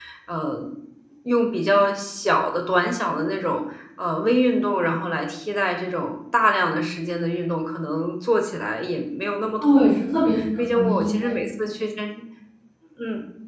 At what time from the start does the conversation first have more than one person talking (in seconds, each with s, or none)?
9.6 s